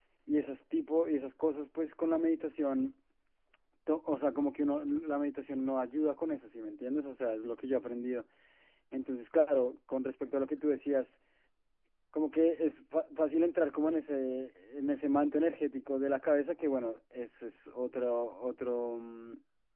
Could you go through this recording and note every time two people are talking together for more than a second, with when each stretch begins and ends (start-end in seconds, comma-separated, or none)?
none